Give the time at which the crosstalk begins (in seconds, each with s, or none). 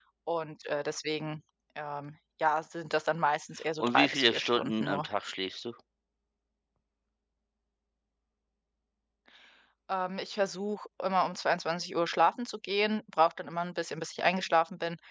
3.8 s